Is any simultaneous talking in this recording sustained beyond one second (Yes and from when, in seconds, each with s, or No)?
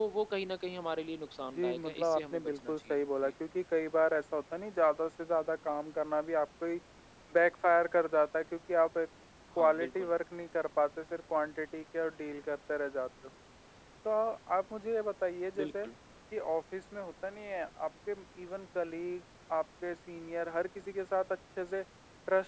Yes, from 1.6 s